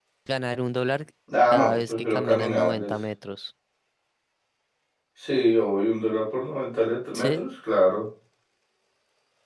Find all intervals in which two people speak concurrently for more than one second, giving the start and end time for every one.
1.5-2.9

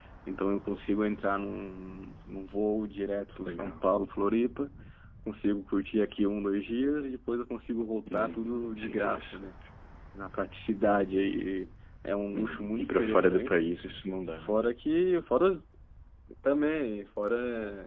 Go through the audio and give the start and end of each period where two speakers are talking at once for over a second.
8.1-9.4, 12.3-13.6

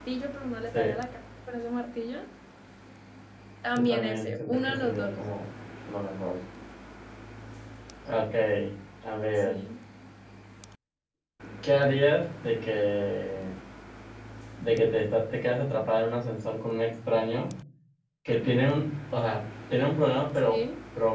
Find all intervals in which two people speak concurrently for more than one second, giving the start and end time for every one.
3.8-5.2

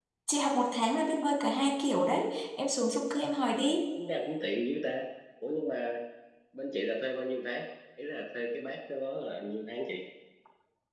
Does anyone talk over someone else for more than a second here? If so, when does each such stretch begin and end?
none

